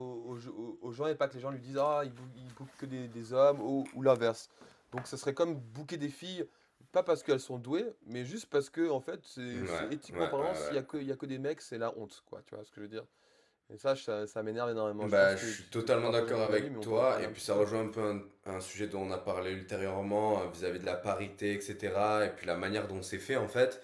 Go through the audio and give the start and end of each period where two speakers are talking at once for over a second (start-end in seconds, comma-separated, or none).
9.5-10.8, 15.0-17.7